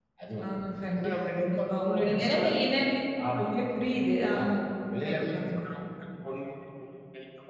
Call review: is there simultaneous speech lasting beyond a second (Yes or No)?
Yes